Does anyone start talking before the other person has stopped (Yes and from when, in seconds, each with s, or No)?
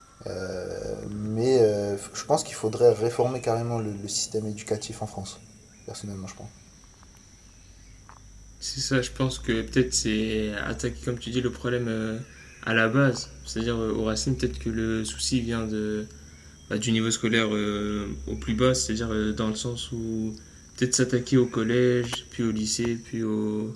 No